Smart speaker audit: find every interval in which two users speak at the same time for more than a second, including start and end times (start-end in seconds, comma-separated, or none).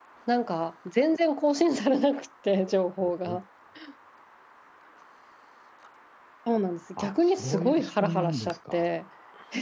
7.0-8.9